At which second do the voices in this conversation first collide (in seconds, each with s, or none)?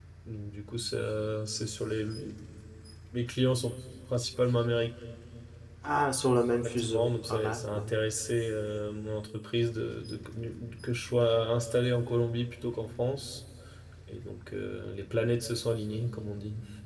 6.6 s